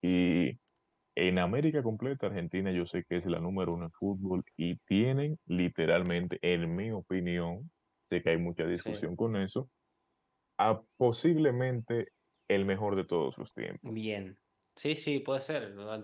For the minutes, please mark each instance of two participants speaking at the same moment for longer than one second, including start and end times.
none

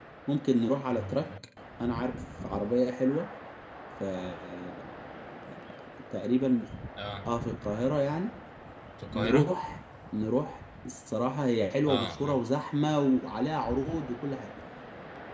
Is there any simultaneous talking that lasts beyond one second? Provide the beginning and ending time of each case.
none

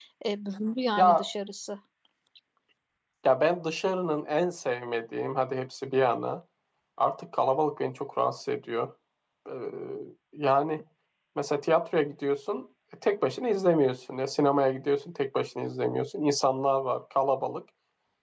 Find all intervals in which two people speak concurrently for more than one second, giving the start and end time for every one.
none

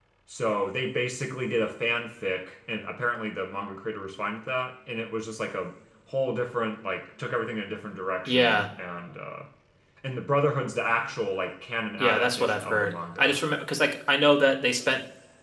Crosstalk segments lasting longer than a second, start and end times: 12.0-13.4

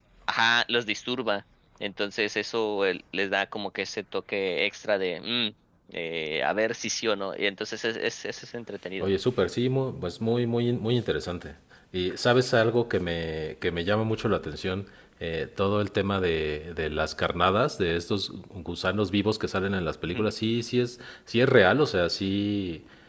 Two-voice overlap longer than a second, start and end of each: none

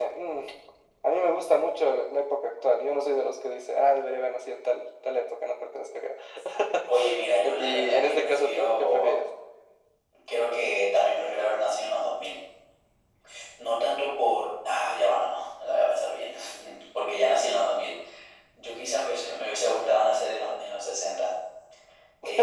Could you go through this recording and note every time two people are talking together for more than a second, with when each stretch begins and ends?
7.4-9.1

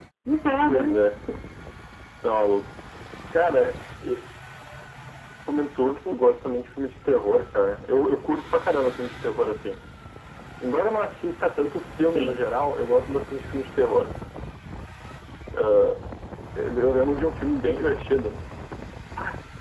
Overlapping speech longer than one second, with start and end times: none

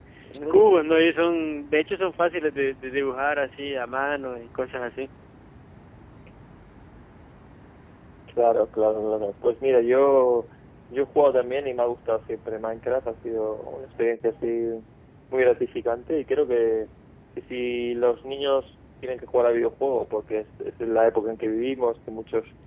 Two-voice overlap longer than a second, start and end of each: none

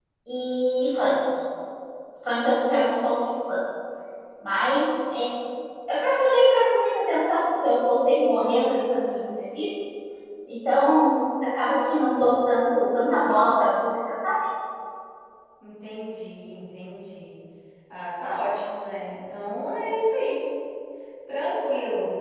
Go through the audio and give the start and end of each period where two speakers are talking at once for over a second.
none

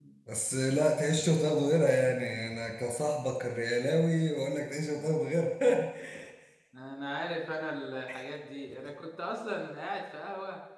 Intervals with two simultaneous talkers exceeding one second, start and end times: none

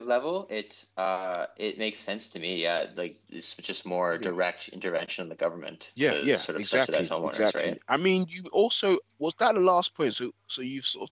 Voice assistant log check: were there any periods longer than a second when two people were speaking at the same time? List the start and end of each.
6.0-7.8

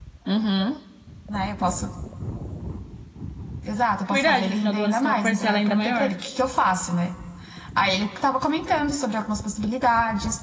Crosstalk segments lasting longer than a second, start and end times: 4.1-6.1

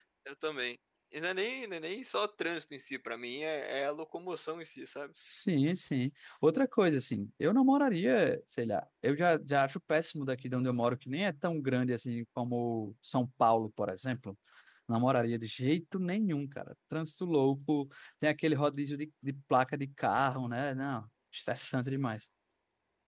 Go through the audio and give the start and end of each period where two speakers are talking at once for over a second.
none

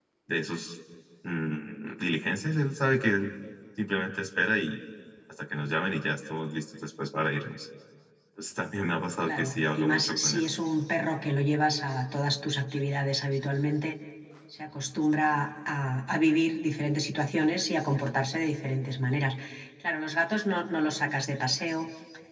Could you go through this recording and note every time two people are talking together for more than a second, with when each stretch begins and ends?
9.2-10.4

